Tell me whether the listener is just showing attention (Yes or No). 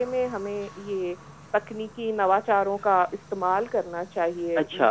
No